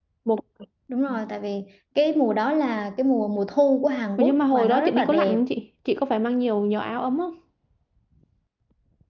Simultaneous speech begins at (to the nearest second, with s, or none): 4 s